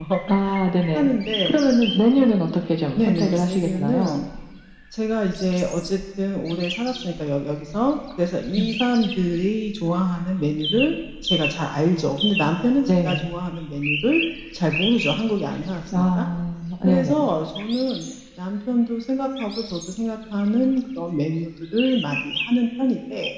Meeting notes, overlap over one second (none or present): present